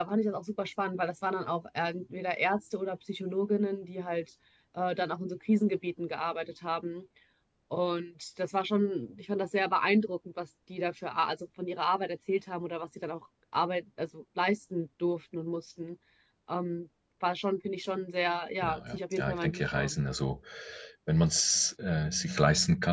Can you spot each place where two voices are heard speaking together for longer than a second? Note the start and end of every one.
18.6-20.0

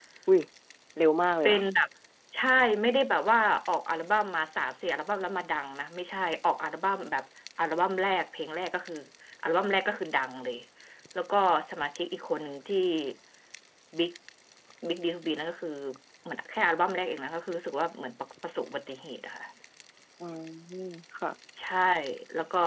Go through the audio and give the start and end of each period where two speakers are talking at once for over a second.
none

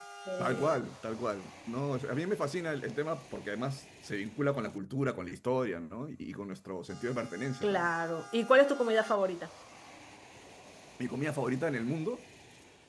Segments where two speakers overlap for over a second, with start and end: none

